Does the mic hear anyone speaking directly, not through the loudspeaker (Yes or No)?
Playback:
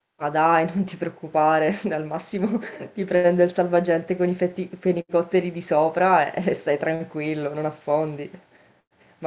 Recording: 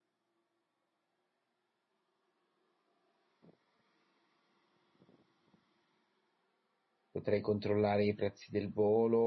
Yes